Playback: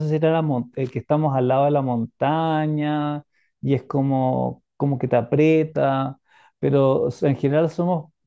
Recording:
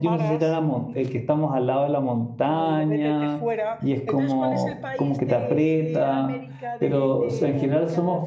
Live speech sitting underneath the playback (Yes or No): Yes